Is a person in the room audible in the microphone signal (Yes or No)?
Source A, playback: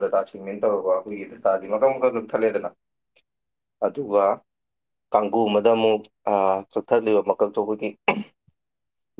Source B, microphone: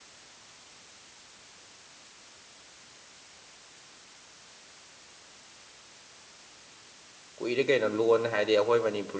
Yes